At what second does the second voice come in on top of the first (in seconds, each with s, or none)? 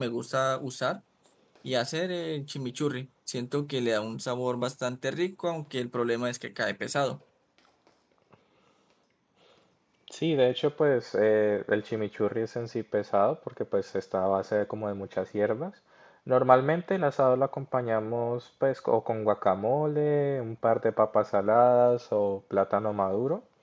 none